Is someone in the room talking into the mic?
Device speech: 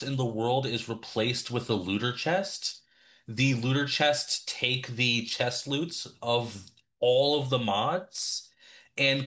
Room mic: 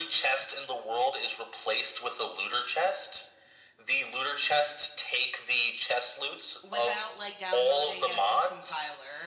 Yes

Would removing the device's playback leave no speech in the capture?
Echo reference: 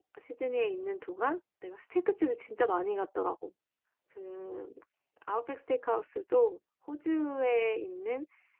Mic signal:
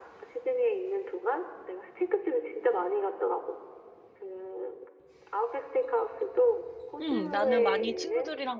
No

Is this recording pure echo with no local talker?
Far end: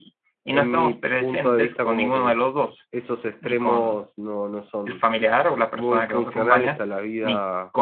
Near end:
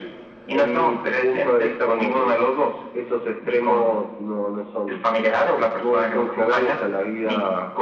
Yes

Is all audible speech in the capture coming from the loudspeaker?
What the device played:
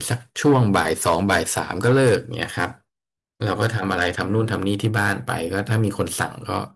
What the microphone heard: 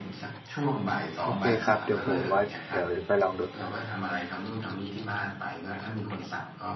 No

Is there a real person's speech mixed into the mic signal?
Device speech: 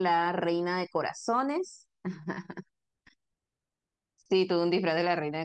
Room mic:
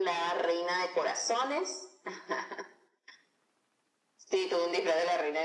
No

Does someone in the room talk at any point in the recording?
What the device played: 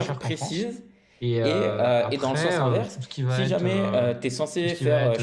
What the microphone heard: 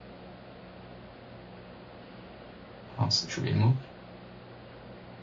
Yes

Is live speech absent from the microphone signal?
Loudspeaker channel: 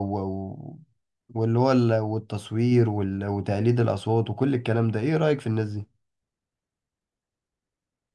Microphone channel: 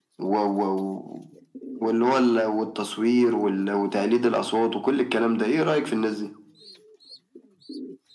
Yes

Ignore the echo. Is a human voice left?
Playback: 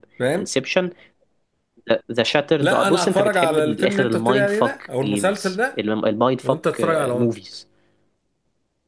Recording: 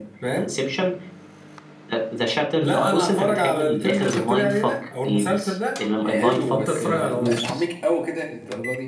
Yes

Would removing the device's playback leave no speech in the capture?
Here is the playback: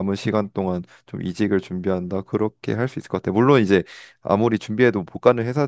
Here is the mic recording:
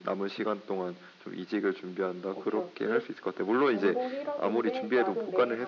No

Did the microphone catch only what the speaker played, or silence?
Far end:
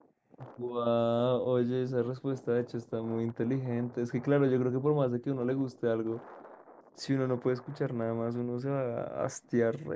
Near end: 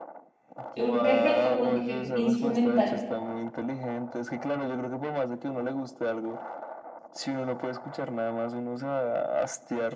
No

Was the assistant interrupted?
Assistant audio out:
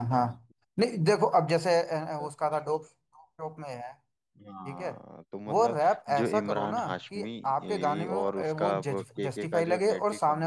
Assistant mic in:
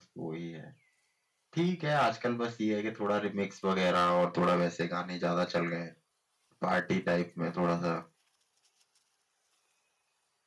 Yes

